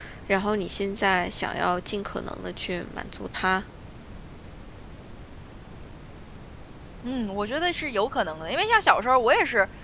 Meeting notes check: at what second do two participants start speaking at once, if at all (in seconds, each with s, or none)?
none